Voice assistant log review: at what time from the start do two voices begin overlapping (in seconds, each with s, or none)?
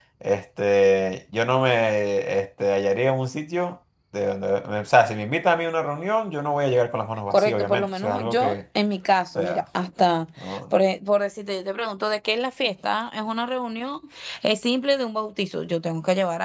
7.3 s